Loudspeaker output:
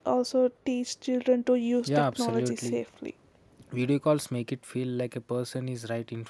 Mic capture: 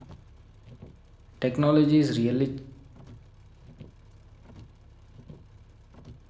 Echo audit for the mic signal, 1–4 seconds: user only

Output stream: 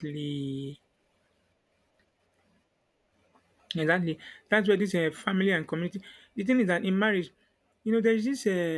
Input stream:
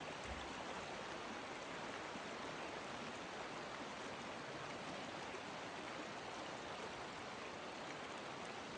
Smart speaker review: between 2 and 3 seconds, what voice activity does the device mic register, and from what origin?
neither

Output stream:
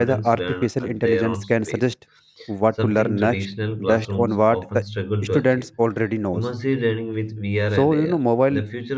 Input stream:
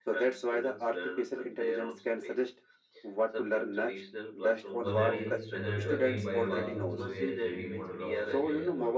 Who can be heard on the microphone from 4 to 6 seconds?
both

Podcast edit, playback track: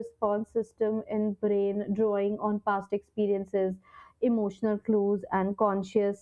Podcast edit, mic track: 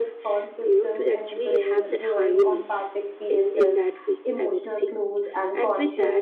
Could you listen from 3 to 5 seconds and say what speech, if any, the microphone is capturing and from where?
both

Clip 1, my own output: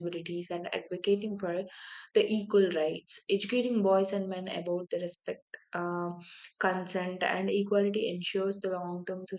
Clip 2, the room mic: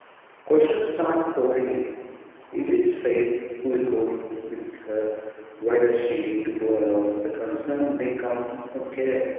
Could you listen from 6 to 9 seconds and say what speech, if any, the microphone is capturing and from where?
user only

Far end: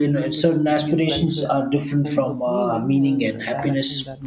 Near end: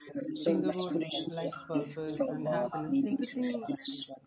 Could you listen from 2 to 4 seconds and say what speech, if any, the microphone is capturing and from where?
both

